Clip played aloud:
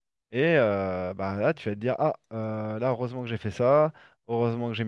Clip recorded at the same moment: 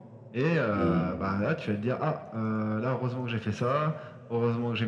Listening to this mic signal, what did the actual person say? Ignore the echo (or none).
Hmm.